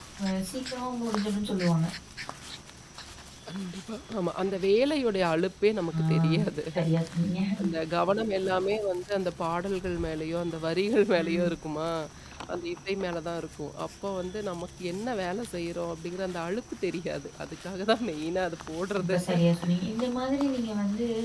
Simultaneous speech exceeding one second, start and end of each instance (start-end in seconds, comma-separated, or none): none